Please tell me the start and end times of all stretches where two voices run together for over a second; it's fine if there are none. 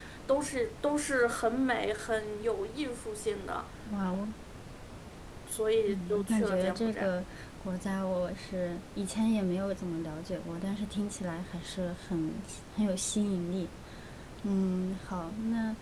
5.9-7.1

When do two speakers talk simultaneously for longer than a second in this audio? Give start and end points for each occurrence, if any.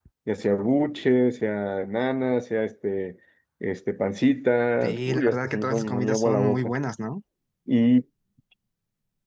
4.8-6.7

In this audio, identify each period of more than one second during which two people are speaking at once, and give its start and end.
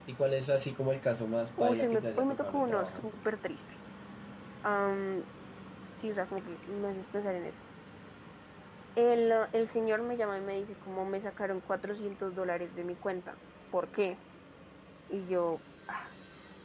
1.6-3.1

